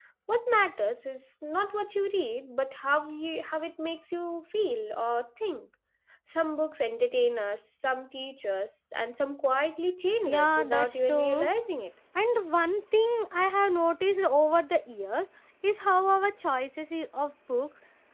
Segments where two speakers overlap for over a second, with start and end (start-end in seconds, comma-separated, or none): 10.2-11.5